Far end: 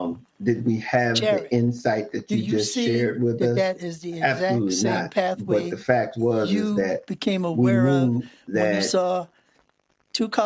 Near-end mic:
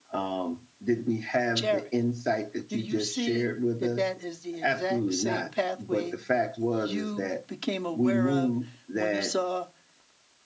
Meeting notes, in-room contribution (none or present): none